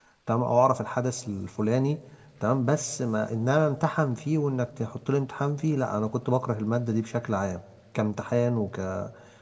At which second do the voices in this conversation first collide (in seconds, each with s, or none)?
none